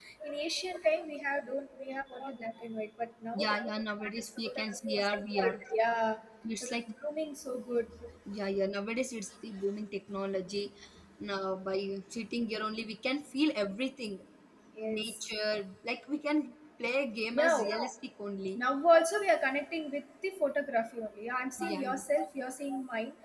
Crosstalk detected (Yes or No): Yes